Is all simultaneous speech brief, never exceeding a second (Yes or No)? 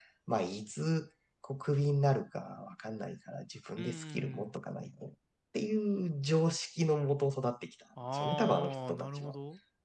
No